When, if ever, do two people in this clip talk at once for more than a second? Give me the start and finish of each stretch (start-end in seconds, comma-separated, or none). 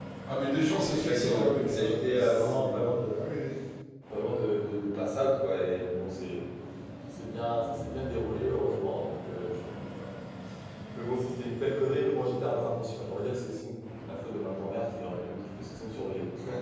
0.9-3.2